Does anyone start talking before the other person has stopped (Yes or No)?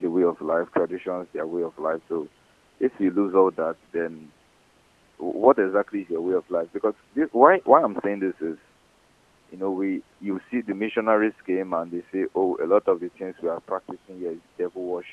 No